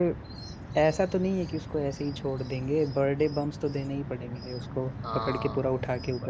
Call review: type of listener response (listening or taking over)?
taking over